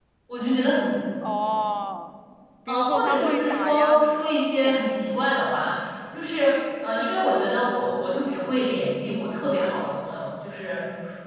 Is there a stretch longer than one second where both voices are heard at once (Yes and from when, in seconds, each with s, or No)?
Yes, from 2.7 s